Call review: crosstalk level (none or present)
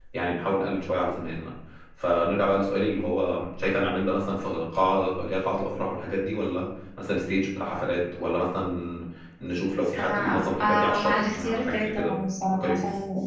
present